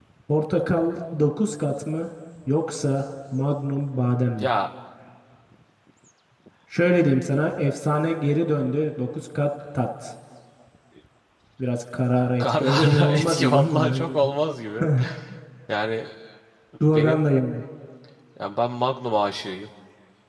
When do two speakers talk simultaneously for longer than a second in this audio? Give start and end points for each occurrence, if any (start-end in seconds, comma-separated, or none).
12.4-14.2